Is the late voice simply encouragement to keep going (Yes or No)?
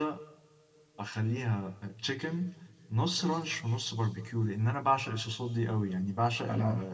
Yes